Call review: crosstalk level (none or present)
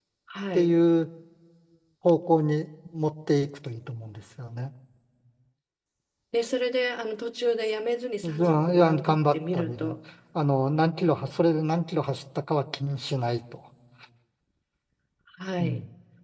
present